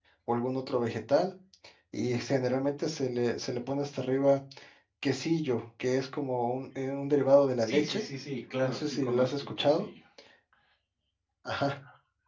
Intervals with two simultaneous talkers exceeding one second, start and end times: 8.6-9.8

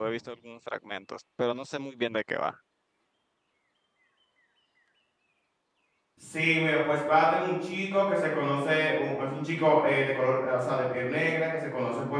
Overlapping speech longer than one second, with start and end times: none

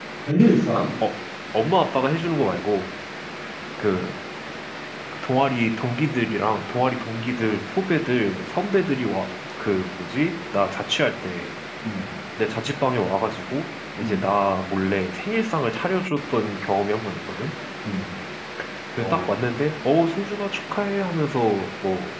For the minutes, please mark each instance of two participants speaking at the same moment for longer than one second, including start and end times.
none

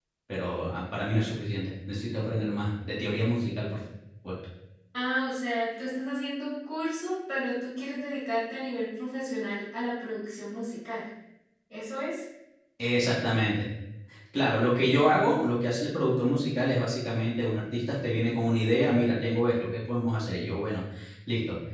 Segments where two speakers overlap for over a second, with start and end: none

